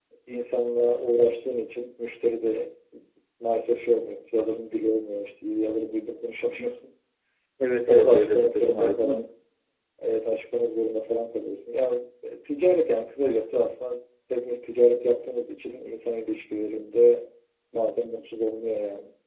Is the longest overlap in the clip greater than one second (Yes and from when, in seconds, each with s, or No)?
Yes, from 7.9 s